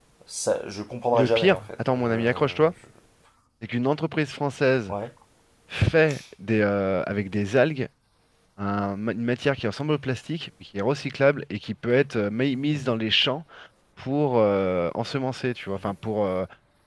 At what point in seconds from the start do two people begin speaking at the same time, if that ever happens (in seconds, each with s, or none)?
1.1 s